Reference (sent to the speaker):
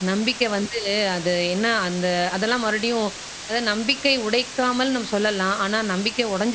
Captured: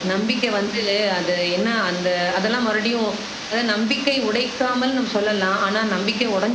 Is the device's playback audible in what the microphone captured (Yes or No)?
Yes